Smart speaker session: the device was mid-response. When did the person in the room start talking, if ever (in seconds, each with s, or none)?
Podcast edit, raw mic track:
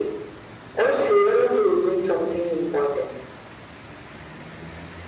none